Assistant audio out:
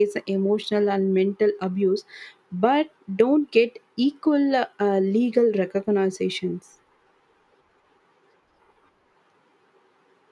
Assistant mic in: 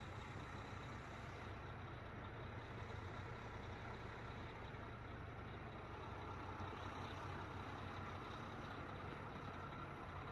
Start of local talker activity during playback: none

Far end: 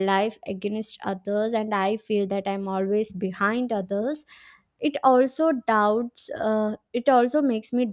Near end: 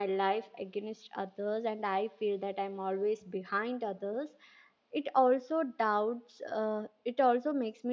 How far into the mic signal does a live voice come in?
none

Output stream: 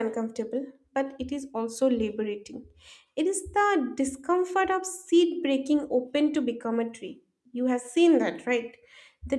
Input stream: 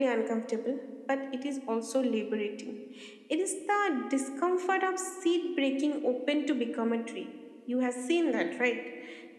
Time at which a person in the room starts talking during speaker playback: none

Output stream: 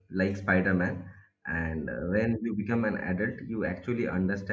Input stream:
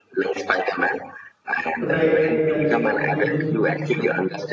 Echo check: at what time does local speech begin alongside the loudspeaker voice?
1.8 s

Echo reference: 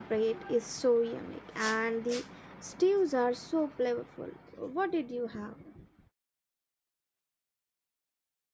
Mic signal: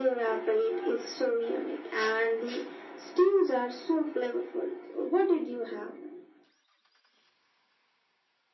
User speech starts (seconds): none

